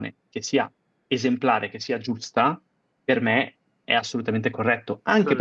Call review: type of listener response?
listening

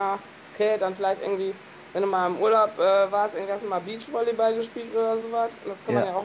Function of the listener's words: listening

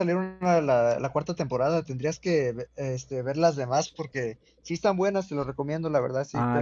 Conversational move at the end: listening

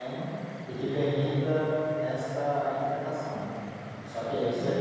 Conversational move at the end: listening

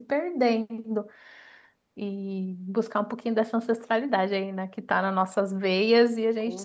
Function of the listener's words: taking over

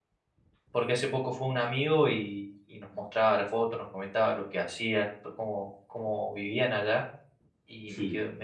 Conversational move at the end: listening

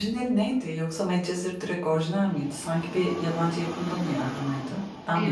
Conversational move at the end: taking over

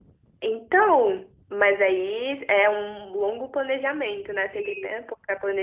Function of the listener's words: taking over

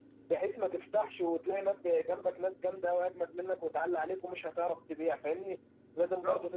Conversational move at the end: listening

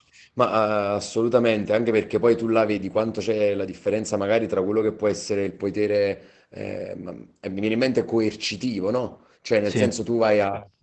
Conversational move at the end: listening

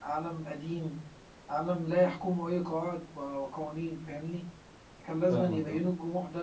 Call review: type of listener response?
listening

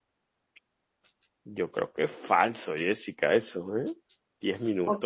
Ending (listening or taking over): taking over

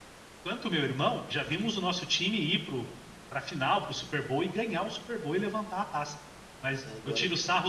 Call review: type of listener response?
listening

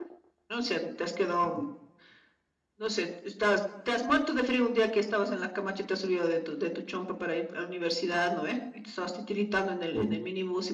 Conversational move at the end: listening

